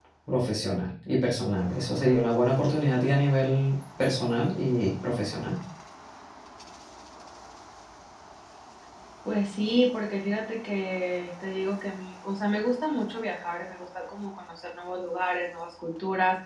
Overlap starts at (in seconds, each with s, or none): none